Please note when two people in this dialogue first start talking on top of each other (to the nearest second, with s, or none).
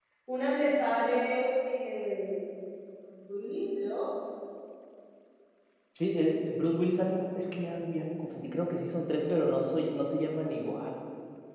none